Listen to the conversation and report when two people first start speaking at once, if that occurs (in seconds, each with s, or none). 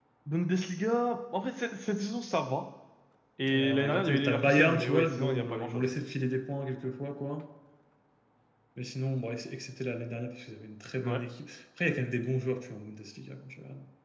3.5 s